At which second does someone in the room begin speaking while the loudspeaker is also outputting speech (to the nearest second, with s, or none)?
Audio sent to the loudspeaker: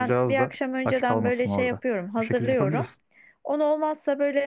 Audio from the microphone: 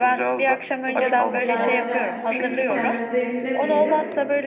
1 s